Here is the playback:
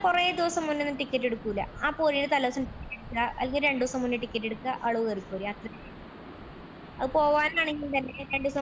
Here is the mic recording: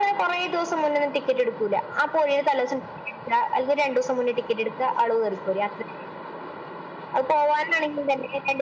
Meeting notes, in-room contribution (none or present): none